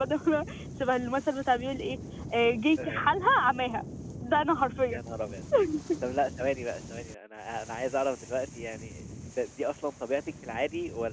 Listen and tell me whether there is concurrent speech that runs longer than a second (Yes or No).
No